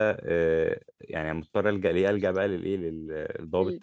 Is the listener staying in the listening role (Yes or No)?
Yes